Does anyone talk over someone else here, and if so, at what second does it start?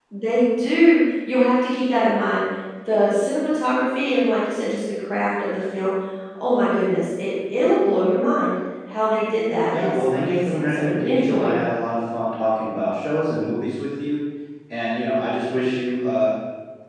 9.7 s

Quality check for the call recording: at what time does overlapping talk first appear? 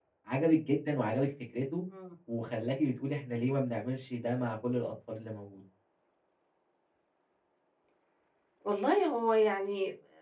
none

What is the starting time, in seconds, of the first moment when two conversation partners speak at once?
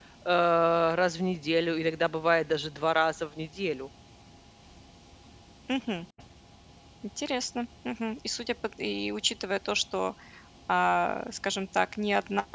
none

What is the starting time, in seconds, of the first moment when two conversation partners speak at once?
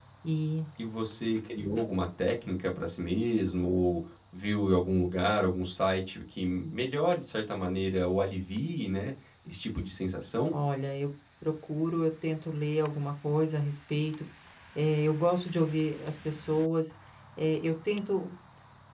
none

